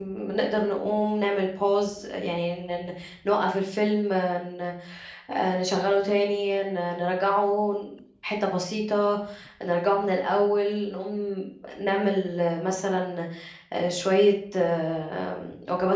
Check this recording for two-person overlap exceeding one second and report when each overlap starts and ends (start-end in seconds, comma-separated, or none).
none